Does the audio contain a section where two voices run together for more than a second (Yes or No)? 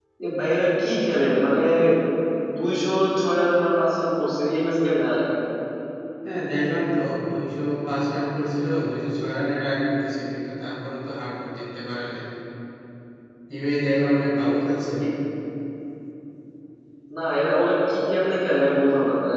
No